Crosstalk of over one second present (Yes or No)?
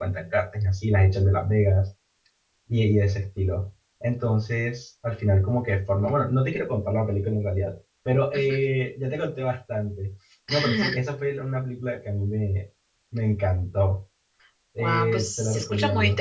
Yes